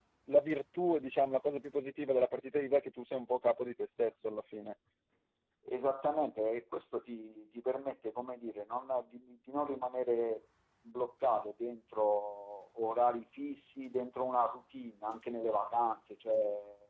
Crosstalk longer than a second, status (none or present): none